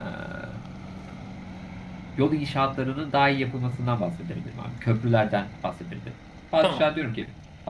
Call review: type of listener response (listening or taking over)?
listening